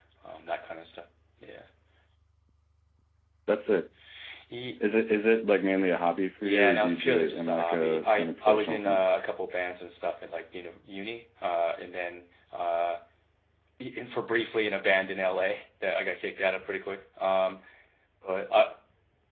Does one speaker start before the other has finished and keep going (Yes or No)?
Yes